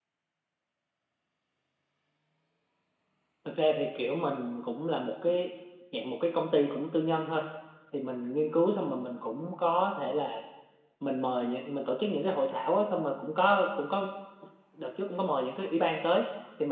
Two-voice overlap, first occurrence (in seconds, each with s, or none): none